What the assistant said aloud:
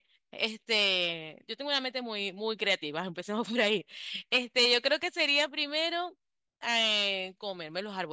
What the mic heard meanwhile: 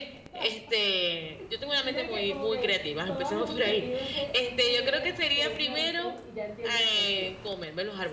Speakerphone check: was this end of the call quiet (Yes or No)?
No